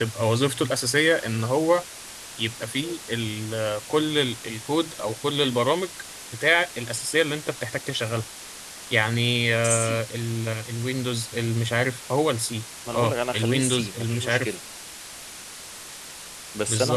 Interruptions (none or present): present